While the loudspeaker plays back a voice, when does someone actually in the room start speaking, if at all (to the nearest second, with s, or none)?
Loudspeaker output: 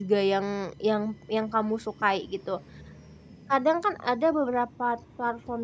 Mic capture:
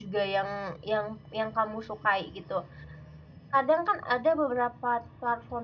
none